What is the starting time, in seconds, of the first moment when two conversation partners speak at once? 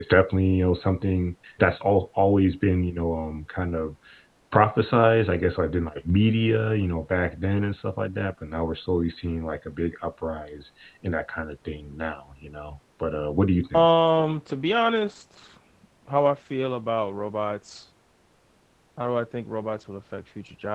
none

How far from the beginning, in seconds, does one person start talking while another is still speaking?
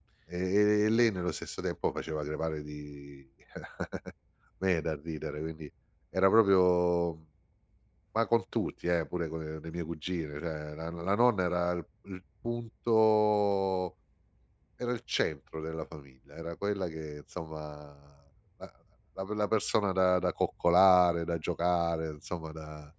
none

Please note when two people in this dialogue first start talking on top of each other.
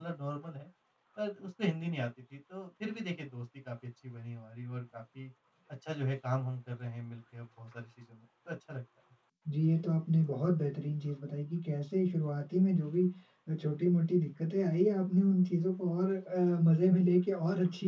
none

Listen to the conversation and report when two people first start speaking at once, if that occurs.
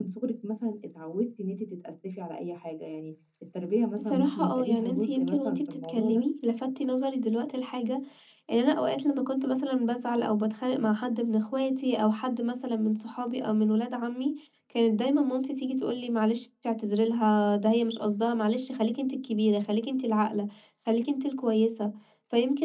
4.0 s

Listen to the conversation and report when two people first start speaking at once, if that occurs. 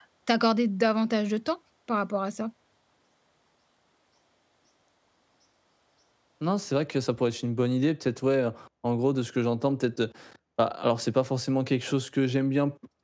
none

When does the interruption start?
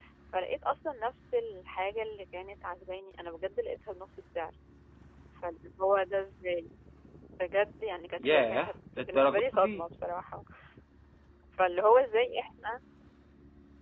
8.2 s

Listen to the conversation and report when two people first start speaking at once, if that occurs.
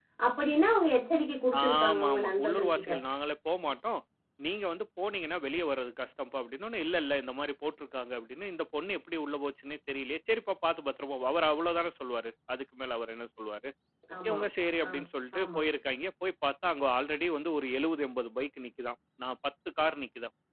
1.6 s

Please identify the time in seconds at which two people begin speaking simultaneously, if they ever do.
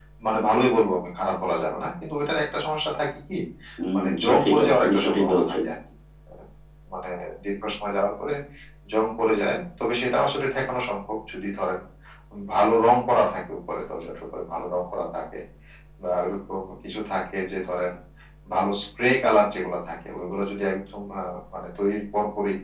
4.0 s

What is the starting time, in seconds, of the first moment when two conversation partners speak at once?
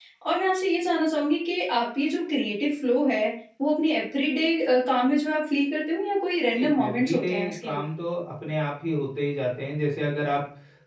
6.5 s

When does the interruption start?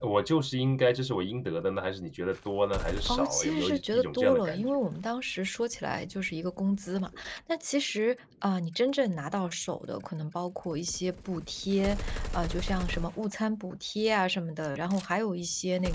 3.1 s

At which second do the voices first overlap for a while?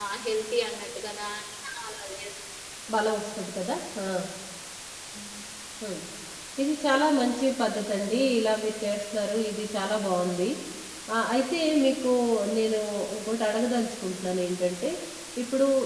none

